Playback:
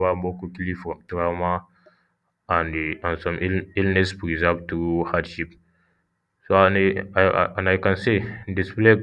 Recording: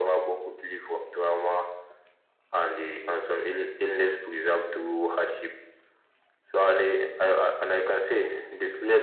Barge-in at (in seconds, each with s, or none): none